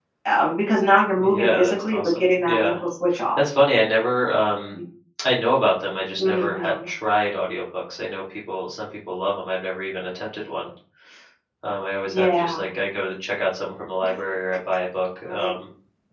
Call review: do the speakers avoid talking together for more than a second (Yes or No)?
No